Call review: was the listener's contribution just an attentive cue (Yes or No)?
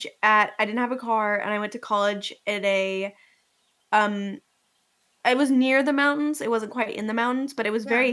Yes